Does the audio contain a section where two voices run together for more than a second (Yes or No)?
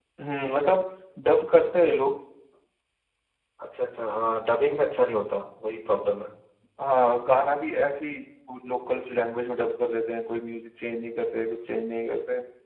No